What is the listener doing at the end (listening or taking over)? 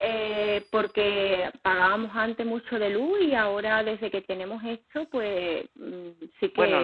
taking over